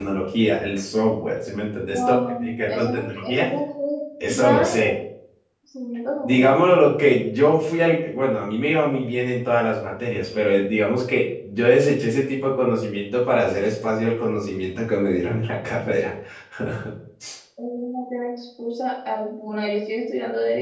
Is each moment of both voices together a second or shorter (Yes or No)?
No